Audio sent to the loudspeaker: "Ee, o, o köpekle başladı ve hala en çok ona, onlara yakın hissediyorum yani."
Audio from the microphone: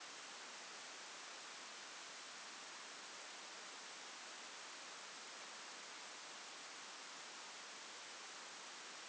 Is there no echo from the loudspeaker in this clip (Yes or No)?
Yes